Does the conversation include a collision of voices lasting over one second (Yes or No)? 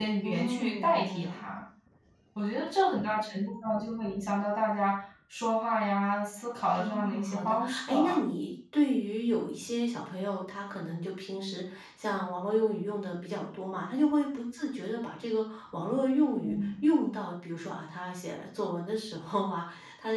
Yes